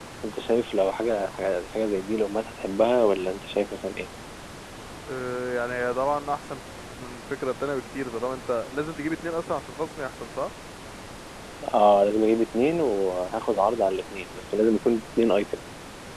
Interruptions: none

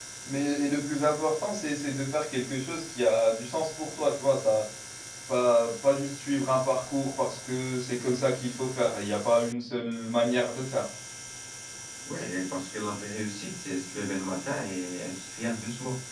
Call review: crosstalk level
none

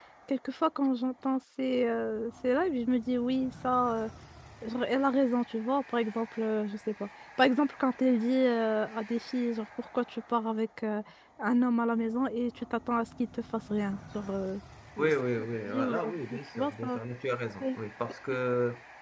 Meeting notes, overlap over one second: present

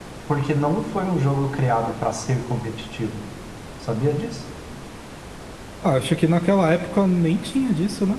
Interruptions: none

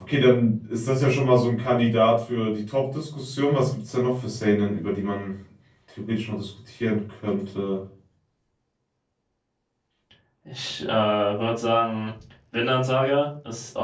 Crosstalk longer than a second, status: none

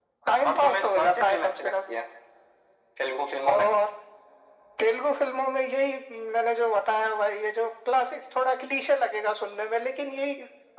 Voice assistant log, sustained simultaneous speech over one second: present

